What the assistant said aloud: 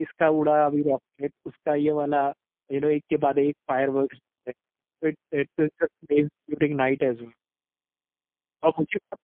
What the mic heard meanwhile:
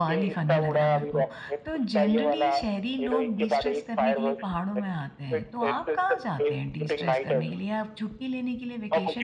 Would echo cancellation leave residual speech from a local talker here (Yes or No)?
Yes